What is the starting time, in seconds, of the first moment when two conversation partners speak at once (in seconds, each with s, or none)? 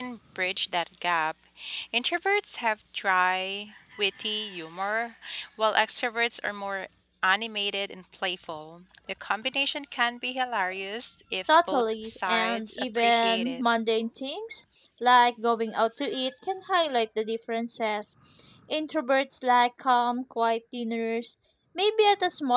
11.5 s